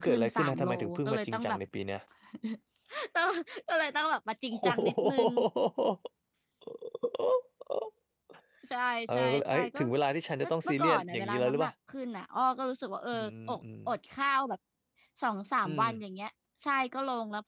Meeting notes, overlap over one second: present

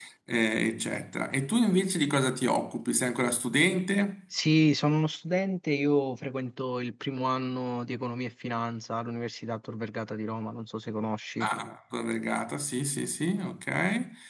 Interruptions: none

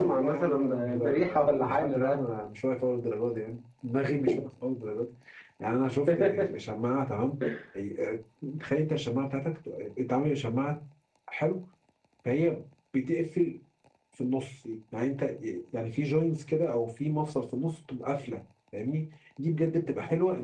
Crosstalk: present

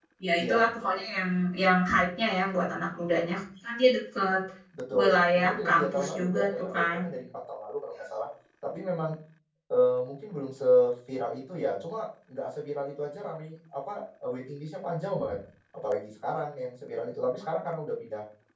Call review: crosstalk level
present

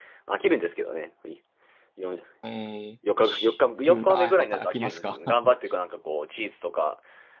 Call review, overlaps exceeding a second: present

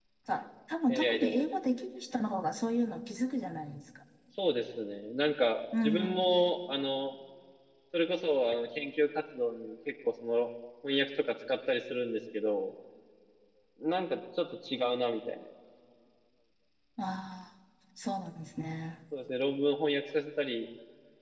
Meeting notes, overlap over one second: none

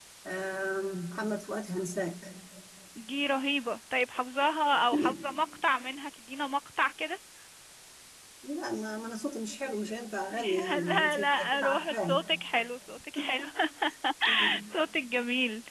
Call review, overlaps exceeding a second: present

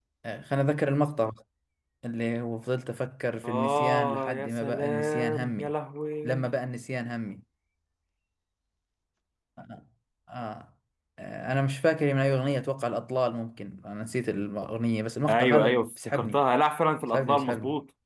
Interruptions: present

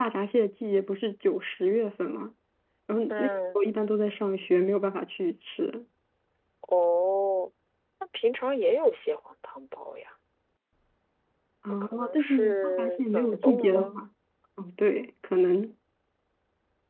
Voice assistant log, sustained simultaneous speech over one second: present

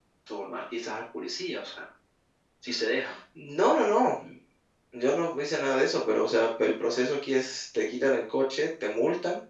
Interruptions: none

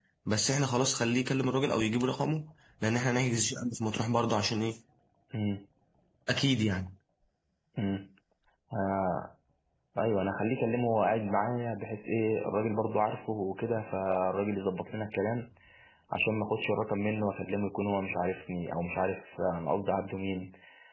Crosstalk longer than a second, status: none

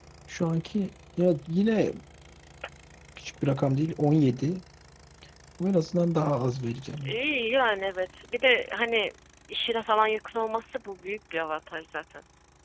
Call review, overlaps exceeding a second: none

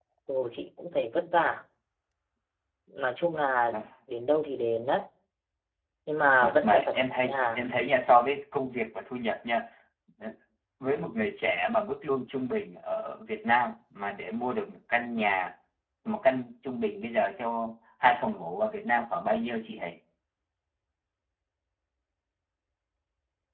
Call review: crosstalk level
present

